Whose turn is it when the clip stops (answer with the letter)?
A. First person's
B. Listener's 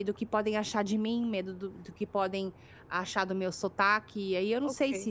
B